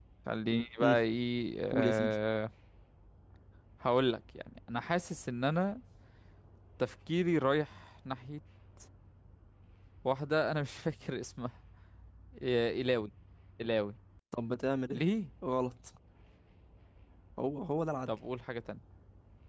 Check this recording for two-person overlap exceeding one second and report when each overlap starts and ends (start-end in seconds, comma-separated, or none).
none